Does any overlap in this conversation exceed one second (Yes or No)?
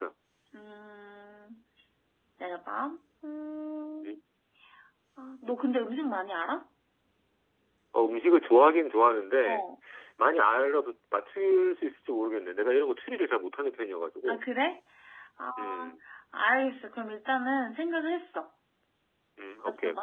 No